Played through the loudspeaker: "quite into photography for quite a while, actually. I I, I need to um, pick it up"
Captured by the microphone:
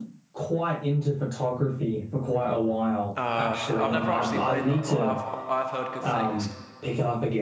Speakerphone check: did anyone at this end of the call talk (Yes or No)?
Yes